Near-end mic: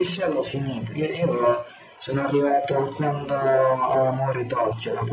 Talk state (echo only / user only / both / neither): echo only